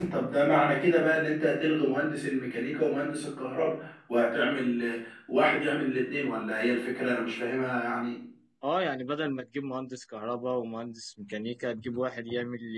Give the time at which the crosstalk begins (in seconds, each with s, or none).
none